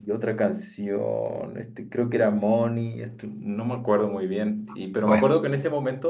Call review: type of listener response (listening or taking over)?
listening